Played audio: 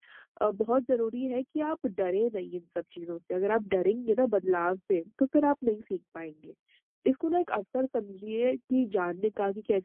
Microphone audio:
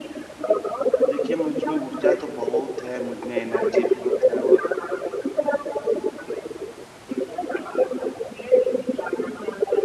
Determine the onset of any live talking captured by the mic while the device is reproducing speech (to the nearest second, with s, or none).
1 s